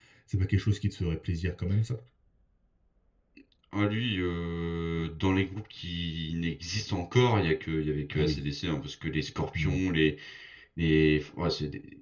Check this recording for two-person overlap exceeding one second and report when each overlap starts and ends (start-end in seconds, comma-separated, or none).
none